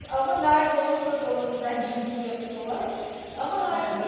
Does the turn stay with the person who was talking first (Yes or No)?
Yes